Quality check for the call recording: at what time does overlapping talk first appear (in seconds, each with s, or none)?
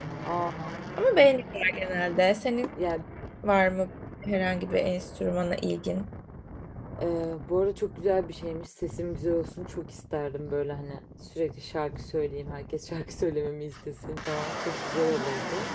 none